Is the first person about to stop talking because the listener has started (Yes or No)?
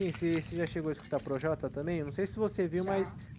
No